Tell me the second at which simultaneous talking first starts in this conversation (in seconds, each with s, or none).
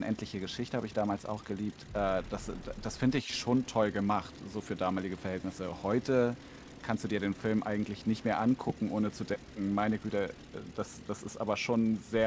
none